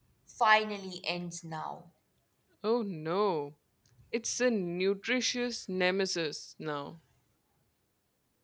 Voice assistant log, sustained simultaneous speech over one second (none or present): none